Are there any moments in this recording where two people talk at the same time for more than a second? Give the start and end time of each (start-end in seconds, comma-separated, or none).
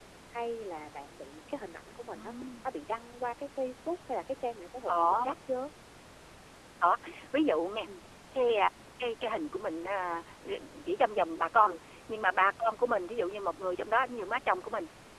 none